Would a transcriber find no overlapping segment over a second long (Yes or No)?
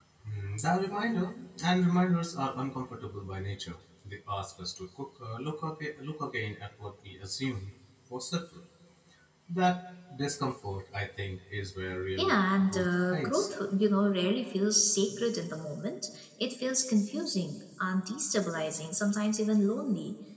No